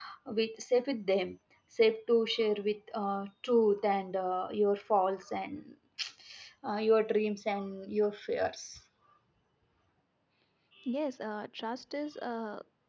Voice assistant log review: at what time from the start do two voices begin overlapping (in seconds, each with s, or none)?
none